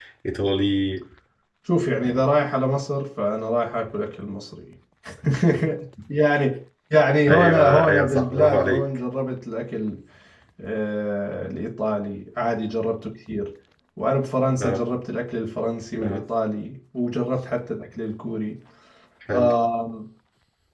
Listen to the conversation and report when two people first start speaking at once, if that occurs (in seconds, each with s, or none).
7.3 s